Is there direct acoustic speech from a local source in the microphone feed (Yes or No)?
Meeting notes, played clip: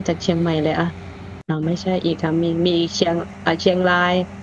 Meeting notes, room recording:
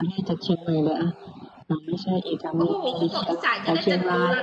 Yes